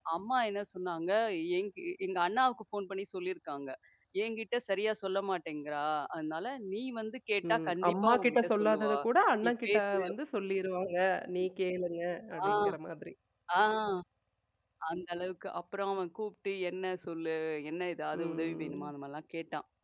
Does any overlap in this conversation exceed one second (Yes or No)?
Yes